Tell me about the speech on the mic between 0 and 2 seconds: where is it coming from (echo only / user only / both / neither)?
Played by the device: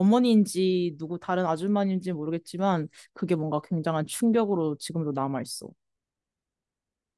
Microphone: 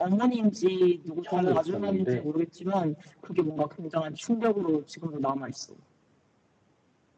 both